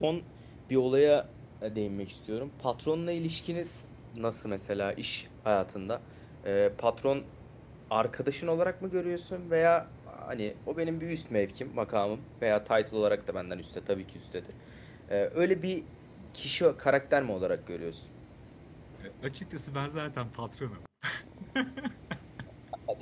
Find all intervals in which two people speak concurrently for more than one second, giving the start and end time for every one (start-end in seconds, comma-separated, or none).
none